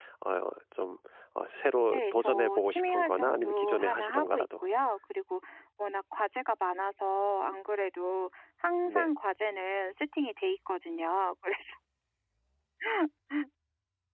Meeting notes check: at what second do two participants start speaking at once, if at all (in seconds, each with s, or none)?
1.9 s